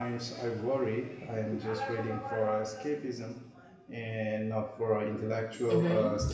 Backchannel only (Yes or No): No